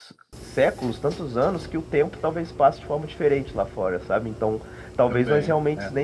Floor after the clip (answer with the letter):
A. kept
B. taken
A